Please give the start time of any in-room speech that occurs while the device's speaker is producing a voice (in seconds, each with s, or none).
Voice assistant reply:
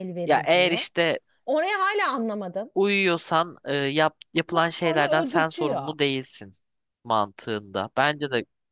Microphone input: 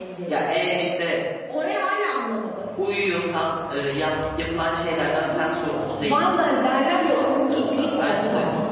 5.9 s